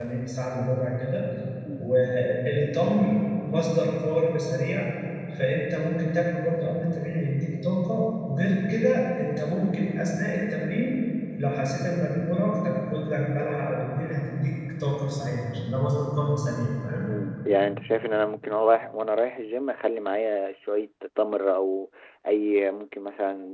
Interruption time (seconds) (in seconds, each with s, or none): none